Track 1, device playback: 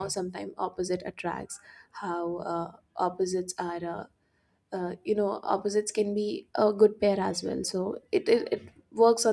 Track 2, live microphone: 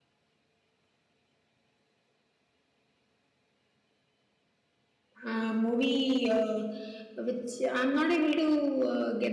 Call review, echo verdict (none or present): none